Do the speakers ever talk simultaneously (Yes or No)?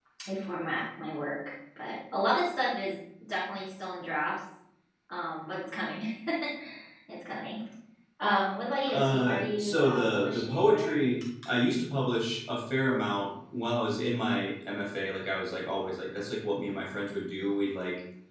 Yes